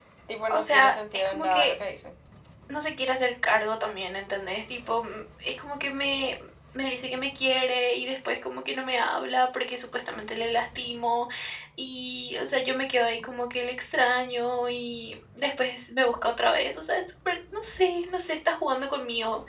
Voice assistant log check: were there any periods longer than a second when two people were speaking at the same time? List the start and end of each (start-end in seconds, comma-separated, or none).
0.5-1.7